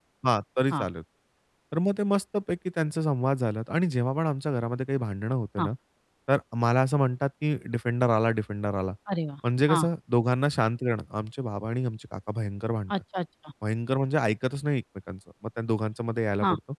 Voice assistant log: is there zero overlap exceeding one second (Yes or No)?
Yes